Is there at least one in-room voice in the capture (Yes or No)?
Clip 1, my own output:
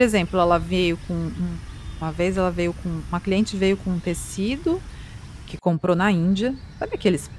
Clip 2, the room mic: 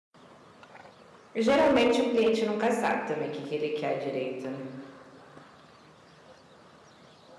Yes